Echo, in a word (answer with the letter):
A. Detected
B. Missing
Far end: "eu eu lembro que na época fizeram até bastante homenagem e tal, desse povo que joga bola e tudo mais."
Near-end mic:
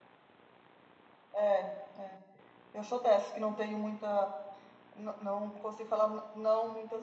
B